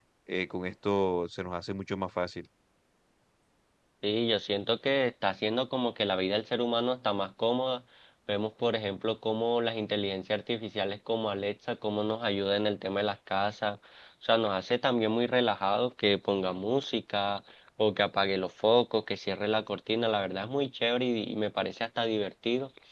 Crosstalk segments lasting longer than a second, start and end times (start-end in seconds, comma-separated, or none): none